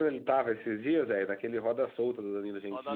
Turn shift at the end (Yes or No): Yes